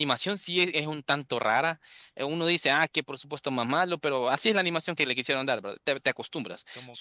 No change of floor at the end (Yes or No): Yes